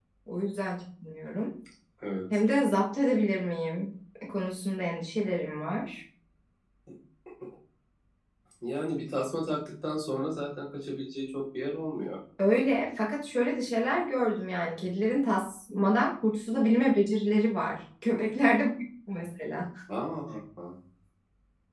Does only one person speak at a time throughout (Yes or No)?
Yes